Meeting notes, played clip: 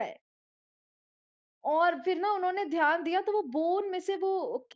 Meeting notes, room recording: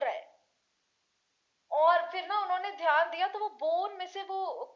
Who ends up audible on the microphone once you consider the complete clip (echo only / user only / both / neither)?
echo only